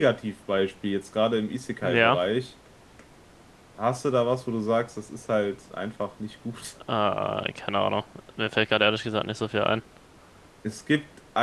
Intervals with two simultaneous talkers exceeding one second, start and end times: none

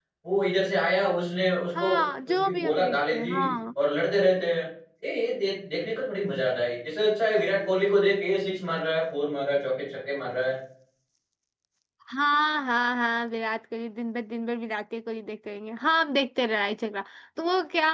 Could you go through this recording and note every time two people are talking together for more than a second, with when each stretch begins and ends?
1.8-3.3

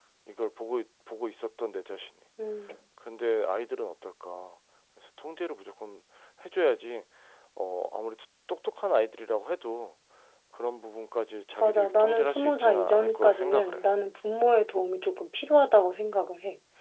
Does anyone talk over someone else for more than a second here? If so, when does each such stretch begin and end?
11.6-13.9

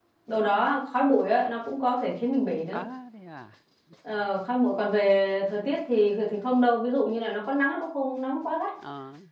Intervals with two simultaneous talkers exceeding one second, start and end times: none

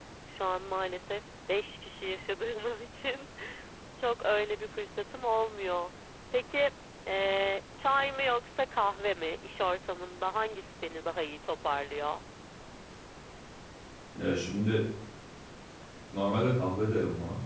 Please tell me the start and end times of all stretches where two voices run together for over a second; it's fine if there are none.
none

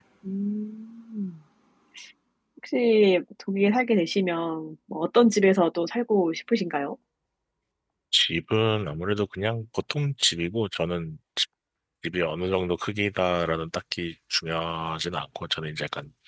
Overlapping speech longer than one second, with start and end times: none

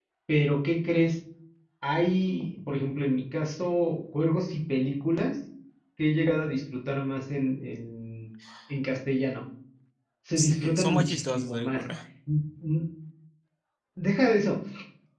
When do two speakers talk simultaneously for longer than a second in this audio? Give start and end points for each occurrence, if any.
10.4-11.8

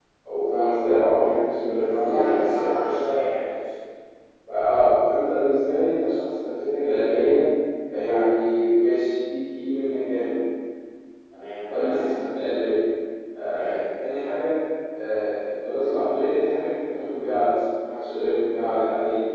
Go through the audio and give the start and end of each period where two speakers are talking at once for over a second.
1.7-3.0

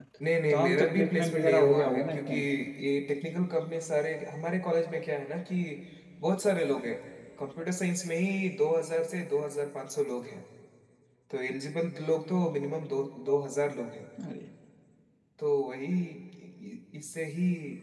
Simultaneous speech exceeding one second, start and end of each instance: 0.5-2.4

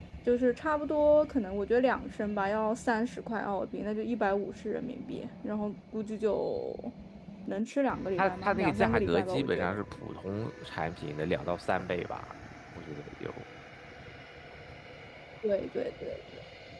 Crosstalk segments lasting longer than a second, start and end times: 8.2-9.8

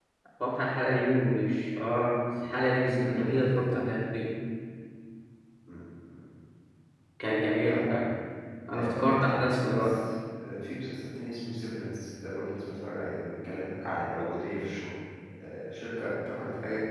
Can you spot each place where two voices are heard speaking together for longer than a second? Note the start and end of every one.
3.0-4.2

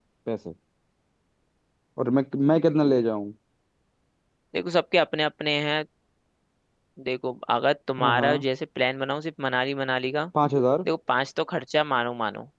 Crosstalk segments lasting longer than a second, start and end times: none

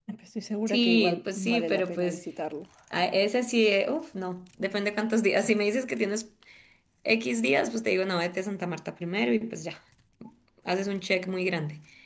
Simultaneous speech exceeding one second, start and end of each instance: 0.7-2.2

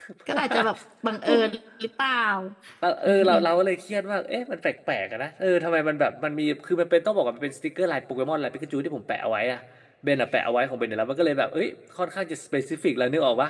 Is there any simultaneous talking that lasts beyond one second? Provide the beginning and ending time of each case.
none

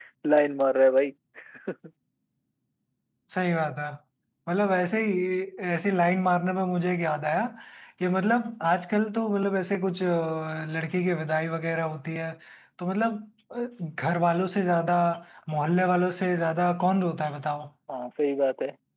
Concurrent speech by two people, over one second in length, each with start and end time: none

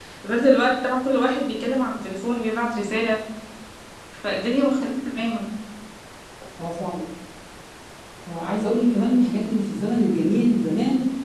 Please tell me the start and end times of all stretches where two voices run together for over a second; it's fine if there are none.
none

